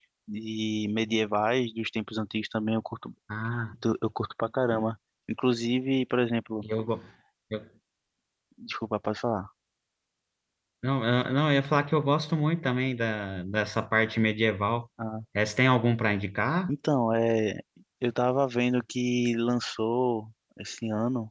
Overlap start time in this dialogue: none

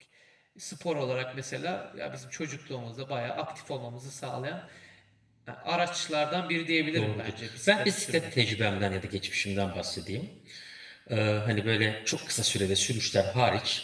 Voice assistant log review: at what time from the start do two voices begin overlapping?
7 s

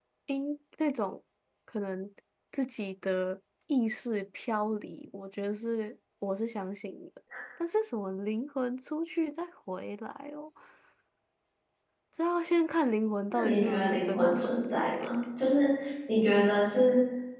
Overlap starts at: 13 s

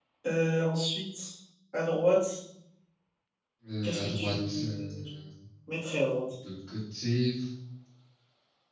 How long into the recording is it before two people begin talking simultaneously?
4 s

